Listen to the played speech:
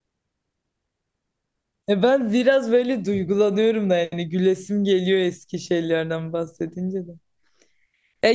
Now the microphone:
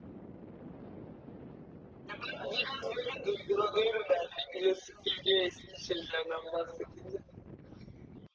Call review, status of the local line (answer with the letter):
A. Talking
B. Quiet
B